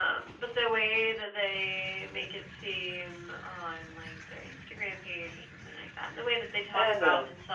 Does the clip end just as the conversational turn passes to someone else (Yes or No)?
No